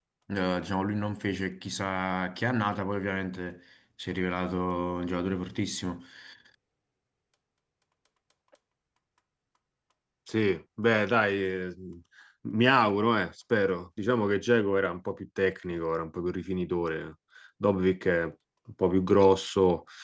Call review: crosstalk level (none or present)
none